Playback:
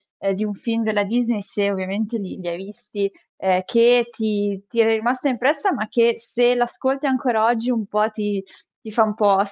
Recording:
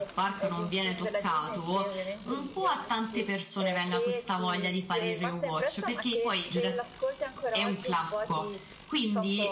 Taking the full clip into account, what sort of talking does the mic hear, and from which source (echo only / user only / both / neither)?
both